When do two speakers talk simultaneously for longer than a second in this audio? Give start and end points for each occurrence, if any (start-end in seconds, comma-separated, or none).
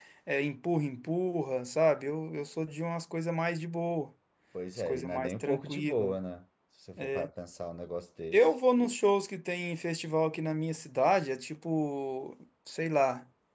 4.8-6.1